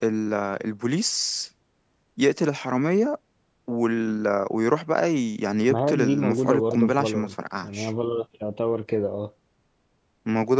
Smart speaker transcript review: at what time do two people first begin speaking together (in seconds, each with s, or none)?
5.7 s